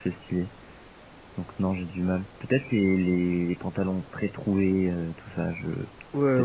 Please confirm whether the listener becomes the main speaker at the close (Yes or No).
Yes